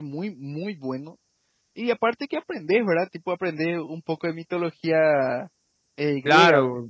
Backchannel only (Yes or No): No